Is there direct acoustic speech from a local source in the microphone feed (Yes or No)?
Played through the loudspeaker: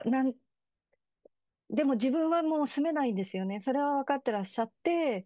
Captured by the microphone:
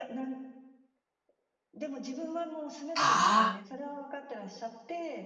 Yes